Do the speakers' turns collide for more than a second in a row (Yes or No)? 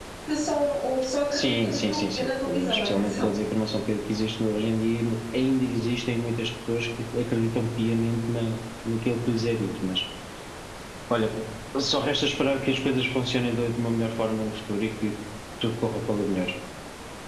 Yes